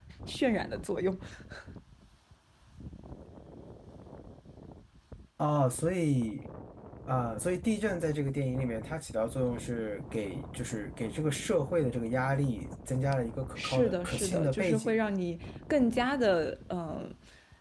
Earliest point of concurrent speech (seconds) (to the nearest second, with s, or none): 14 s